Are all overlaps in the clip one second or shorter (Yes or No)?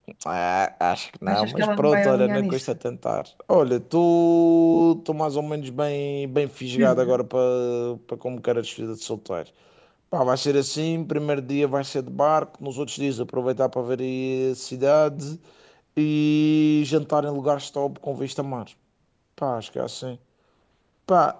No